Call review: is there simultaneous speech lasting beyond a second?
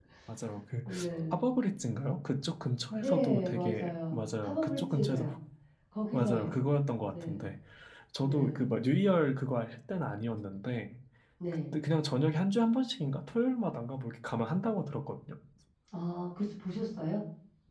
Yes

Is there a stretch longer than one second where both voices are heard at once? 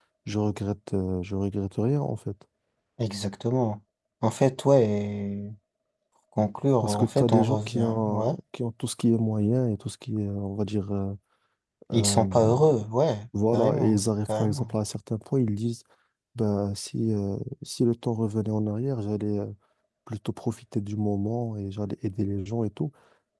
Yes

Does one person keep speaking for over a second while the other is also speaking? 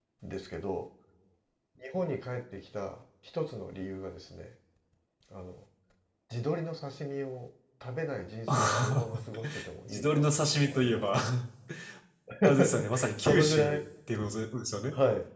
Yes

